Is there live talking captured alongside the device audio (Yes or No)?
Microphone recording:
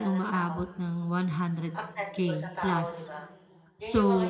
Yes